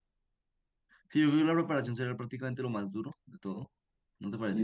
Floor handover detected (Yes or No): Yes